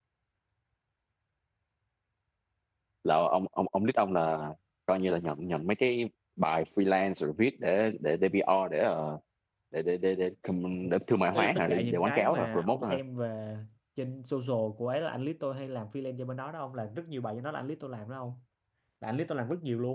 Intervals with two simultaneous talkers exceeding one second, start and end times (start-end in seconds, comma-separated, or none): 11.3-13.0